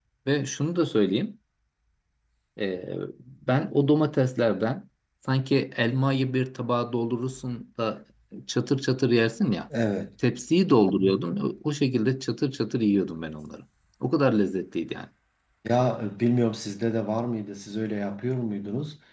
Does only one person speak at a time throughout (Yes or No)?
Yes